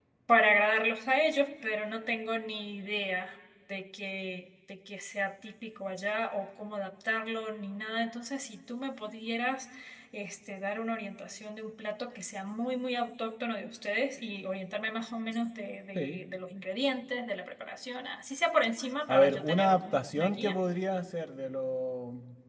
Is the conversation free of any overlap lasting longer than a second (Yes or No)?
No